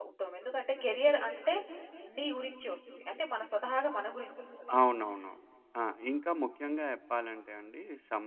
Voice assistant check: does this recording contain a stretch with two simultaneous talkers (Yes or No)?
No